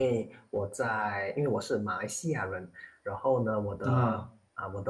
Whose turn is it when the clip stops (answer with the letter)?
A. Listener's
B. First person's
B